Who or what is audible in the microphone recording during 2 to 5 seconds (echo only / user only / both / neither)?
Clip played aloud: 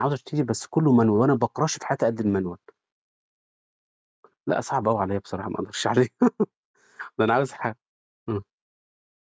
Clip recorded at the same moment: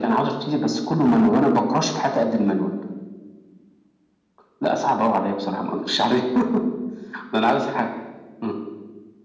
echo only